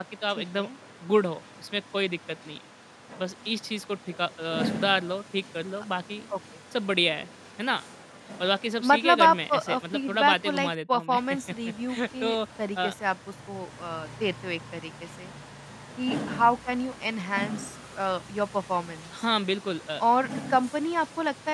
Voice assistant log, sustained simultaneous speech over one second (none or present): present